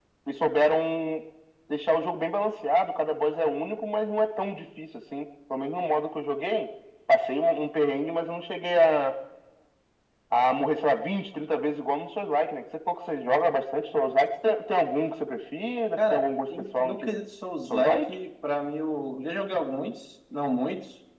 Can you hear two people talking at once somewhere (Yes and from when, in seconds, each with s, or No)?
Yes, from 16.0 s